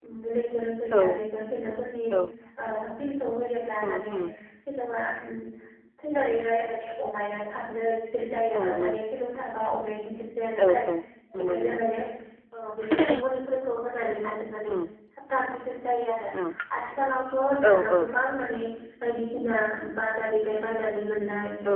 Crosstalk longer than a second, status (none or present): none